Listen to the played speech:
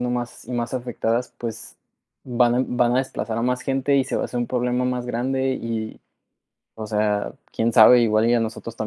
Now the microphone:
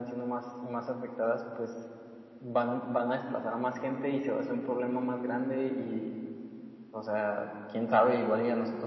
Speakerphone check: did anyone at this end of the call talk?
No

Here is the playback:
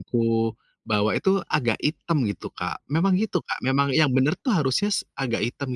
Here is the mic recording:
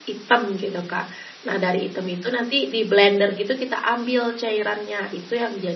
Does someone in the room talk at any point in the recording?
Yes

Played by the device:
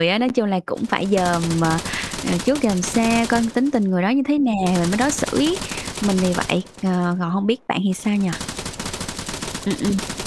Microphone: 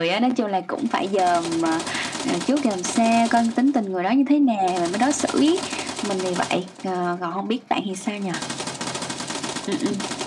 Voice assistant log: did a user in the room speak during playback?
No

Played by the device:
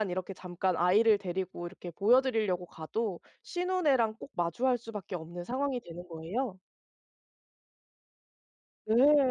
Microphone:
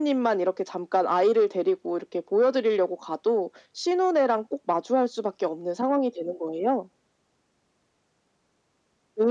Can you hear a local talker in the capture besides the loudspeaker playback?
No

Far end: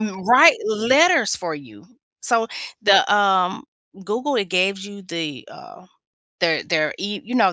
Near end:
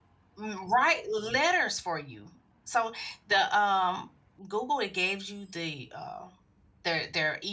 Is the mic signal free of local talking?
Yes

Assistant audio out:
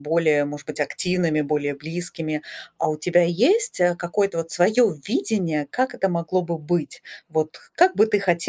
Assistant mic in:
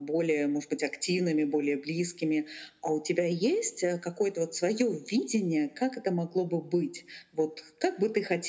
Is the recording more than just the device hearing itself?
No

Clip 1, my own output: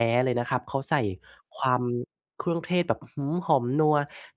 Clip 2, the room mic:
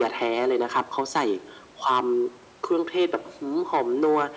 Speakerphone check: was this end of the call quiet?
Yes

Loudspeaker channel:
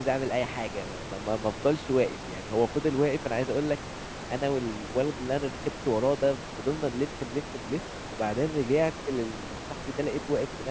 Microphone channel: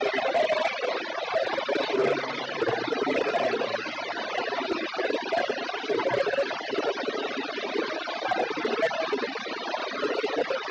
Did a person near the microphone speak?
Yes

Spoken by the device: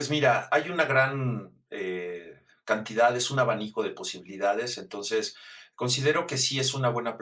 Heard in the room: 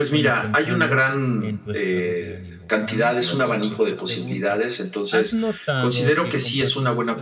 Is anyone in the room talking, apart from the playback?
Yes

